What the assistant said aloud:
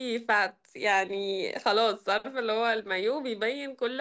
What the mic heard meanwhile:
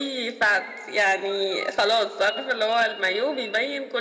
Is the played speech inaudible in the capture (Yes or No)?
No